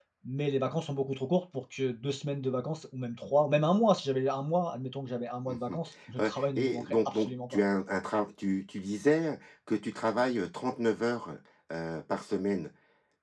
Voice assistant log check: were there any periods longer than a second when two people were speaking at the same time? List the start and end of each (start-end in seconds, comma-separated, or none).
6.2-7.6